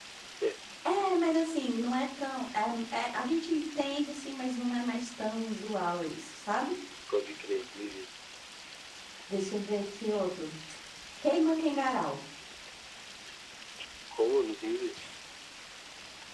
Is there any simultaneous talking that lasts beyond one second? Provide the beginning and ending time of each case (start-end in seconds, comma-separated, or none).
none